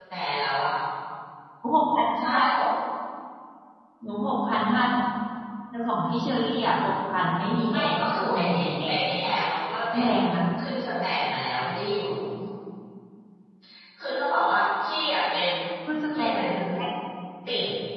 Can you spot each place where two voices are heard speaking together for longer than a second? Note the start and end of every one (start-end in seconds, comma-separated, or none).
7.7-9.1